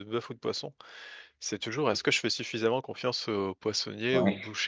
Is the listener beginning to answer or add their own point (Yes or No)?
No